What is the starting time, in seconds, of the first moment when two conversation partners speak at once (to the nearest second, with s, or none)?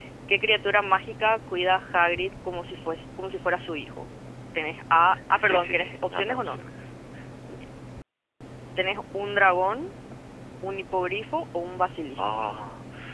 5 s